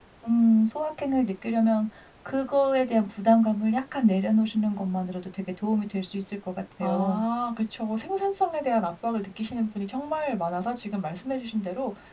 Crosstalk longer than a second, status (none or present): none